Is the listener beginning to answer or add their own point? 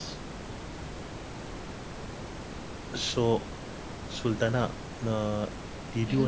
Yes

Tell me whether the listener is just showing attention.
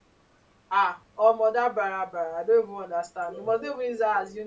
Yes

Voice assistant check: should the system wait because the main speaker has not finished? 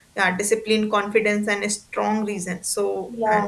Yes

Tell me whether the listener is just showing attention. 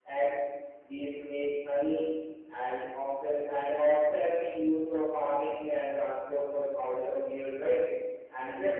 No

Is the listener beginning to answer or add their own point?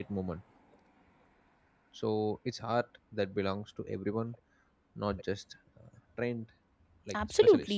Yes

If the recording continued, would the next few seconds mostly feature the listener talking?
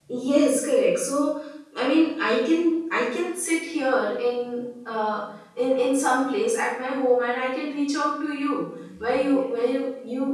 No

